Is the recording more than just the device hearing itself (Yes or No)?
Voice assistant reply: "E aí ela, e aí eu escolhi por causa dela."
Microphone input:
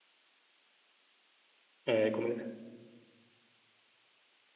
Yes